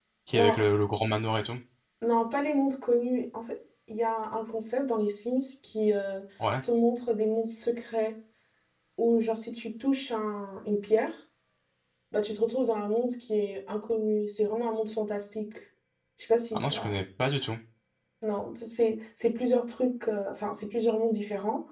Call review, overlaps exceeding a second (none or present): none